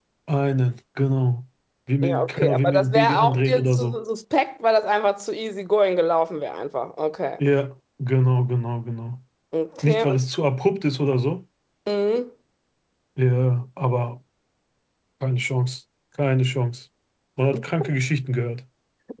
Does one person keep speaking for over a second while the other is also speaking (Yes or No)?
Yes